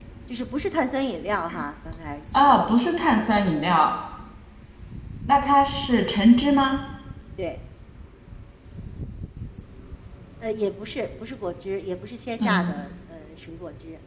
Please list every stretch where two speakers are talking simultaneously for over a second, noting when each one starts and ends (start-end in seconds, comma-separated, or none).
none